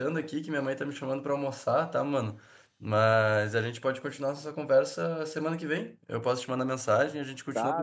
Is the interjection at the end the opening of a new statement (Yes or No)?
Yes